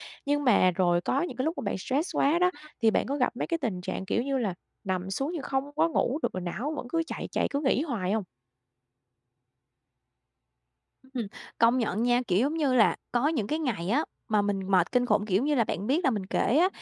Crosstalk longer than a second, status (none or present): none